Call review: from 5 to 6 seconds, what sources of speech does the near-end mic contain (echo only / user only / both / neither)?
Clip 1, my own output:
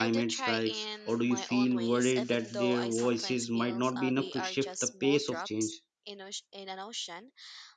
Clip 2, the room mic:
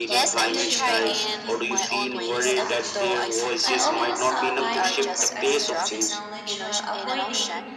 both